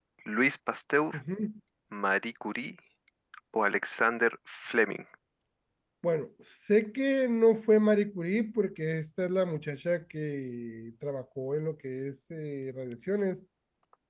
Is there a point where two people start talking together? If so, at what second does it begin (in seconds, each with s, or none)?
none